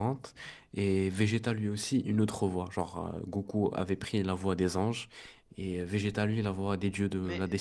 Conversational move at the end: listening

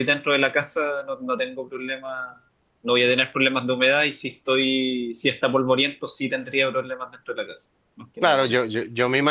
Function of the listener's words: taking over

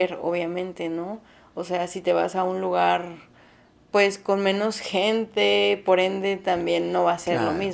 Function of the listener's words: listening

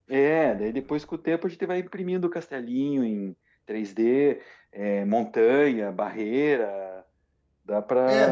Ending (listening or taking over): taking over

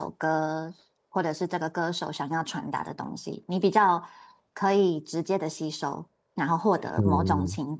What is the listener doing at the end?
listening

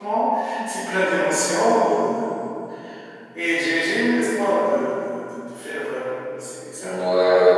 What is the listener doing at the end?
taking over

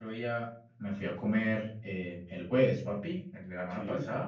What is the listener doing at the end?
listening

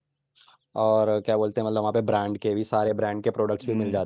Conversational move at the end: taking over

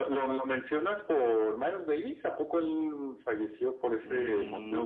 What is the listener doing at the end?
taking over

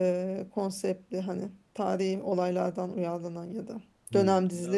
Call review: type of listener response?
taking over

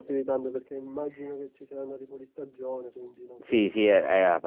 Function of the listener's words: taking over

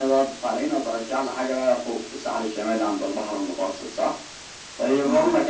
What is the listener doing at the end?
listening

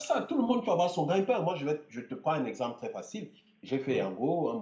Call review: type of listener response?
listening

